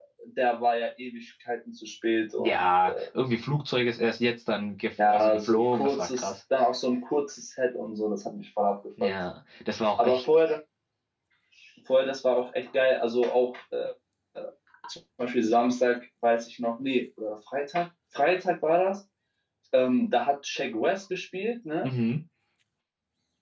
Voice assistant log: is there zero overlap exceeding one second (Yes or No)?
No